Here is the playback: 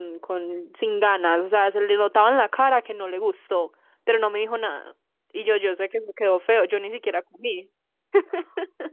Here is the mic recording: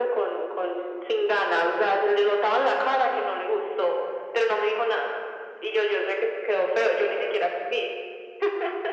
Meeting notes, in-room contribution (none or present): none